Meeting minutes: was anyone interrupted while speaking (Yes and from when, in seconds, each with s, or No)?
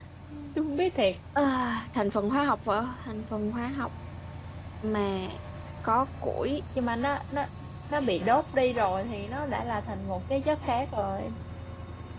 No